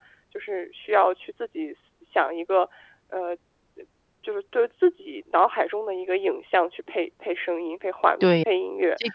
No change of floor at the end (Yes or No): No